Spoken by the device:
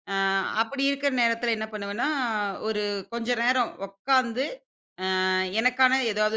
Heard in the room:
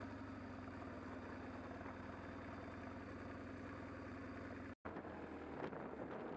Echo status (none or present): none